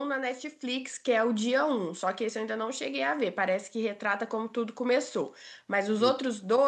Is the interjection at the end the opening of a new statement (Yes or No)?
No